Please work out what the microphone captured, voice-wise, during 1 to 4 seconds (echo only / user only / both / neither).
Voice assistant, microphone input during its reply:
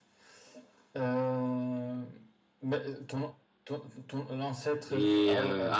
echo only